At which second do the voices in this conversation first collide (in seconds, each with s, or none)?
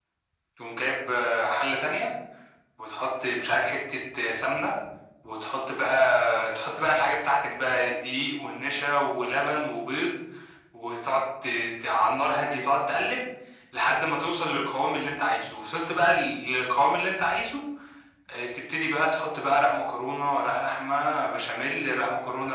none